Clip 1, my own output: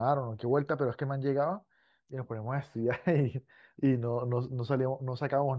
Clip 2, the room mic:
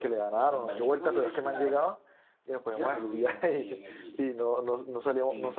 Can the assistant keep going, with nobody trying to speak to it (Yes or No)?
No